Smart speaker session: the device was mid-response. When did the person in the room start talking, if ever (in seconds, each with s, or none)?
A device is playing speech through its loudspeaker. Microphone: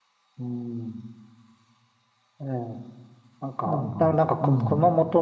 3.6 s